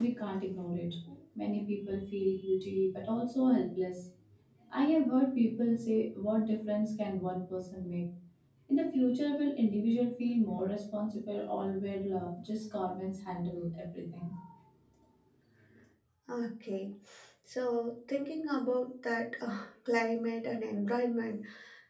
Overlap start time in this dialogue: none

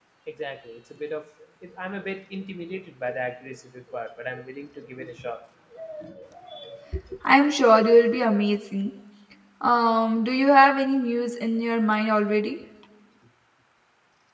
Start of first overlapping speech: none

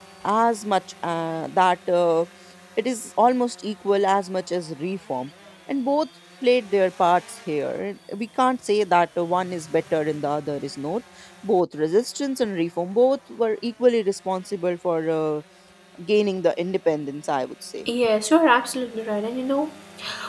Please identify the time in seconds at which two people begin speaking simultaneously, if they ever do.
none

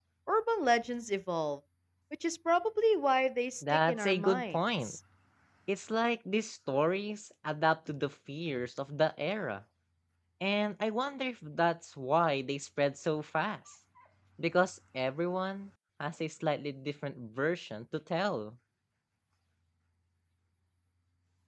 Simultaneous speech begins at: 3.6 s

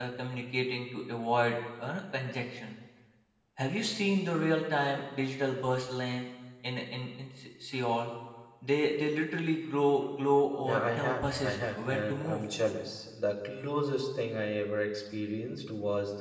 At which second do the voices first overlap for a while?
10.6 s

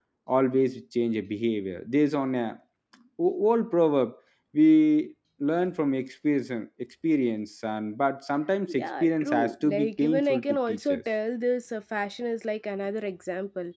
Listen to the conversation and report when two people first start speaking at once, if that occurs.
8.7 s

